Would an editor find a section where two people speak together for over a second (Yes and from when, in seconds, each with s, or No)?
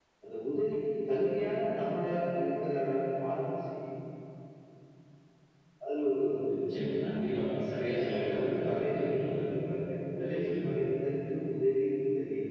Yes, from 7.9 s